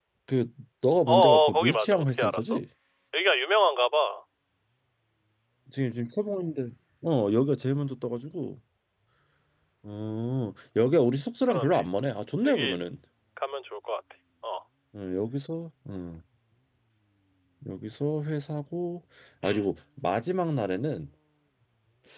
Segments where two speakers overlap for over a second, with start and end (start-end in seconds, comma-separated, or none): 1.1-2.4